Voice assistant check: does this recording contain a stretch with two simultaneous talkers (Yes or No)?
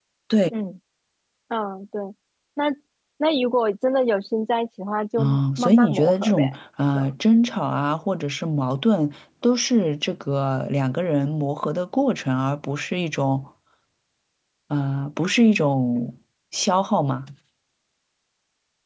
Yes